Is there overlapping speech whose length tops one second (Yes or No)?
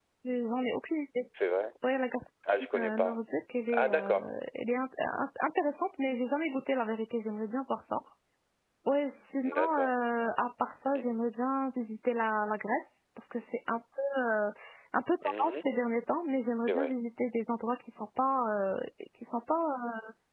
No